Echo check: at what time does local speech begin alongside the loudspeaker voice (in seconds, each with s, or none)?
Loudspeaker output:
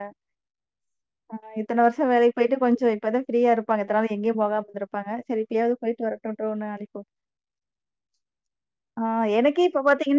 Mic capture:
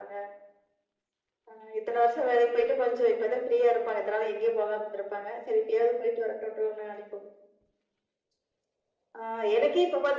none